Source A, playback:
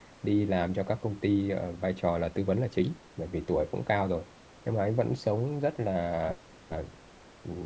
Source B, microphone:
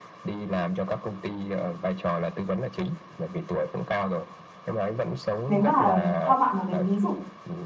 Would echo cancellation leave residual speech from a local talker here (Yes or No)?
Yes